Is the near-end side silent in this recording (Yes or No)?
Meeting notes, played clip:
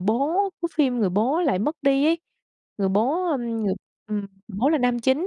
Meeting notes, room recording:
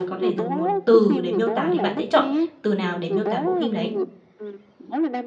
No